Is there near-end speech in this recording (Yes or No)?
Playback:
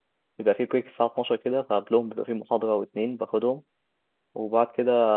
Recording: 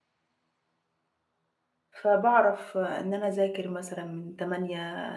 Yes